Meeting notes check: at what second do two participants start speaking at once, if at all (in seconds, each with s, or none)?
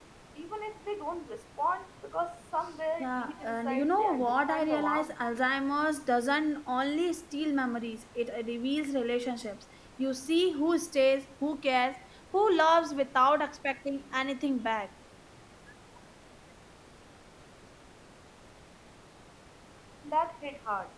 3.0 s